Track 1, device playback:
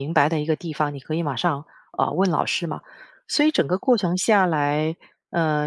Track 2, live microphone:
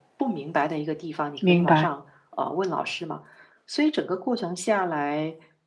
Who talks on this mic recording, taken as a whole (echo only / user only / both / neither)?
both